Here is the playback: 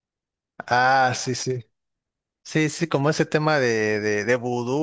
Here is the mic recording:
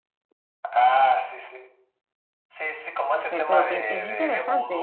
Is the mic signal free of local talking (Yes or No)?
No